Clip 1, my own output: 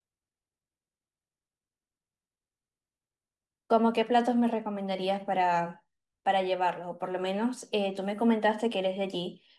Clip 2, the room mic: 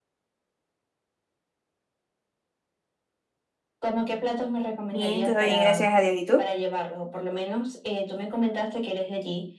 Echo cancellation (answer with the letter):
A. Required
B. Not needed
A